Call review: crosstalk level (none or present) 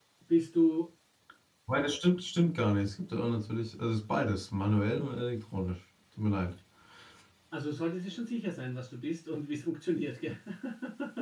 none